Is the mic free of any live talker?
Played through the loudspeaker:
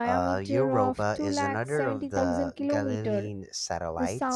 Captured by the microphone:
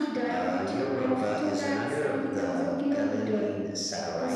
Yes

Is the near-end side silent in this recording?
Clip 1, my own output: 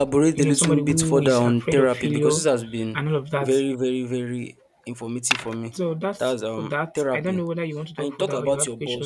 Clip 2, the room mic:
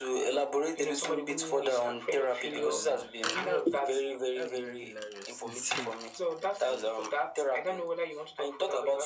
No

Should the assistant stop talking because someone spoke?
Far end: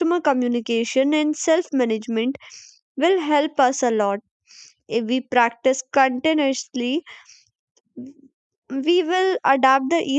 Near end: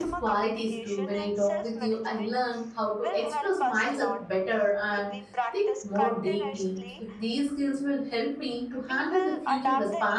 Yes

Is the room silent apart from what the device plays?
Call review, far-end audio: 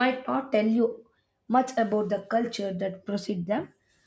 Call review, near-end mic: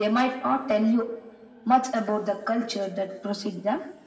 Yes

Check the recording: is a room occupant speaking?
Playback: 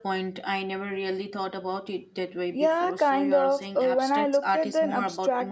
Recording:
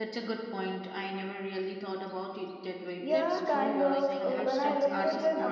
Yes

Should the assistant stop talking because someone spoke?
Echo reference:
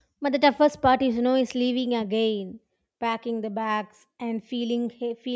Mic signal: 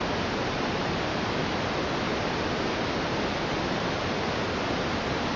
No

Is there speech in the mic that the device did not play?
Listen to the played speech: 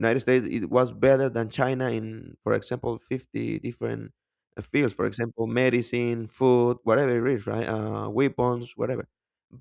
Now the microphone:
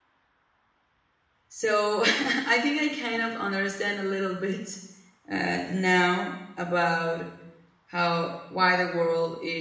Yes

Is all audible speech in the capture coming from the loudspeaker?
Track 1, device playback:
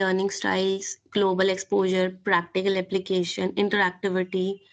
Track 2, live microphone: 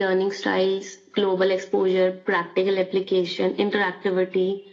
Yes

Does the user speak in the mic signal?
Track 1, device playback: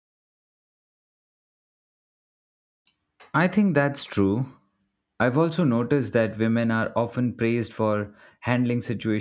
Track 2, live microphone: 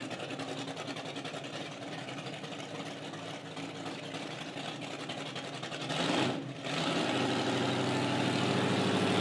No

